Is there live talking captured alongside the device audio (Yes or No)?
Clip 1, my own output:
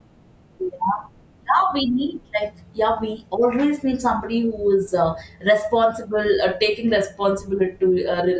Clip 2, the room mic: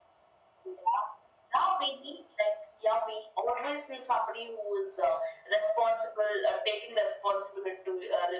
No